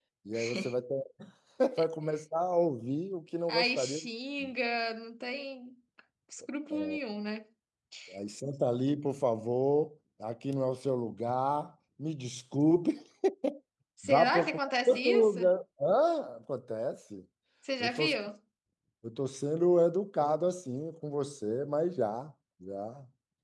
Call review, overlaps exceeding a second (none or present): present